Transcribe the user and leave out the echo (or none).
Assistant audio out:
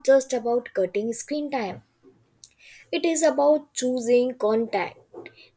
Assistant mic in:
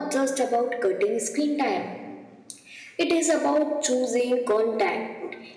none